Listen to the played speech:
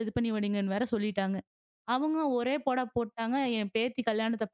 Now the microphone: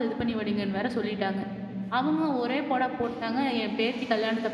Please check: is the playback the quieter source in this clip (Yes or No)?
No